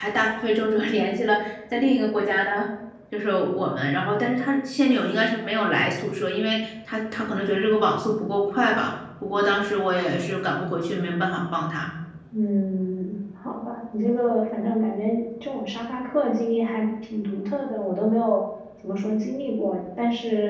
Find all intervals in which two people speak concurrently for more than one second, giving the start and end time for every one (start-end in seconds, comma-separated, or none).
none